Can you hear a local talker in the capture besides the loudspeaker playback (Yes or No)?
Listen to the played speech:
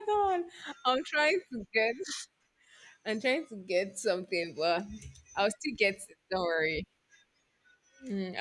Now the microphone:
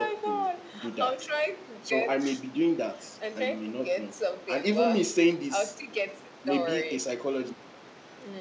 Yes